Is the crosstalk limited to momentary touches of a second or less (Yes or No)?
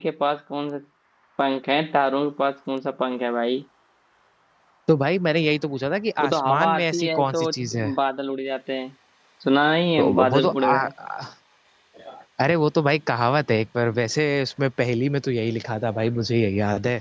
No